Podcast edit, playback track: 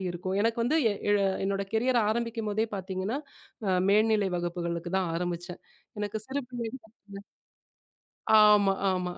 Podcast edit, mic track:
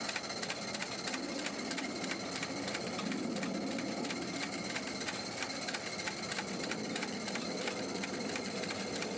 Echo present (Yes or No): No